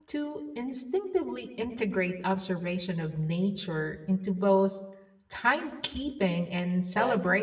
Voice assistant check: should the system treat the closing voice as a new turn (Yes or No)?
Yes